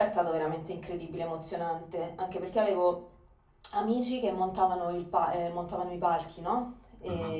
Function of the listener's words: listening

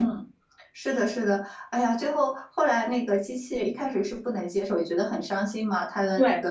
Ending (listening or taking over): listening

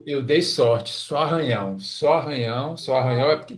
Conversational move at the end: listening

